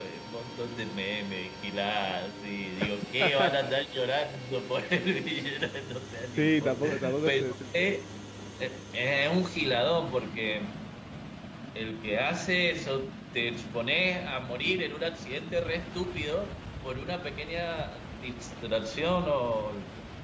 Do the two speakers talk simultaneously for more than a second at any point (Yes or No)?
Yes